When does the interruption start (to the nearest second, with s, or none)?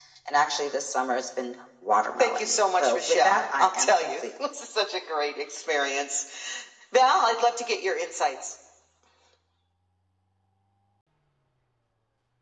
2 s